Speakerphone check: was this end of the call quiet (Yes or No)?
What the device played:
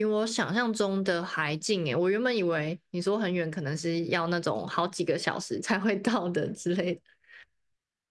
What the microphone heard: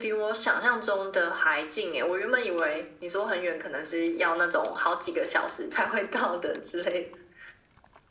Yes